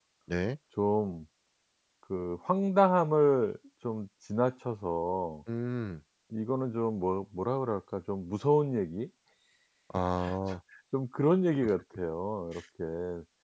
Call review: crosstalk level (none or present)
none